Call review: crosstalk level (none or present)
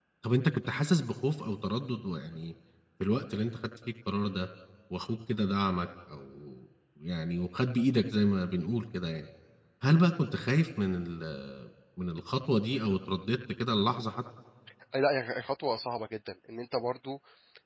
none